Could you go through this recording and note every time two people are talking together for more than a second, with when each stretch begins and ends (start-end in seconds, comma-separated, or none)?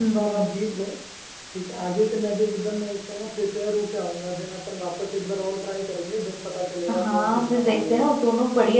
6.9-8.1